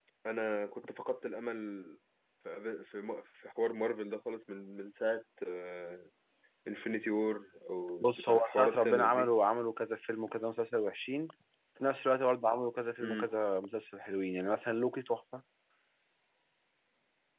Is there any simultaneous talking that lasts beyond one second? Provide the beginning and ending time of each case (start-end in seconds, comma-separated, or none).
8.0-9.3